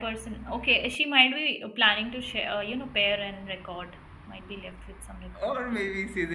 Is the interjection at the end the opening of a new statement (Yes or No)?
Yes